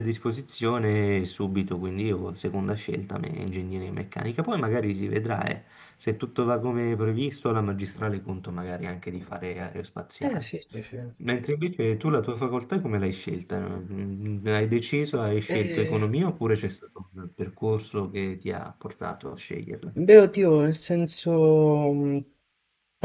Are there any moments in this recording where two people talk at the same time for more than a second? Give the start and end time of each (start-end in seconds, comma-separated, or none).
none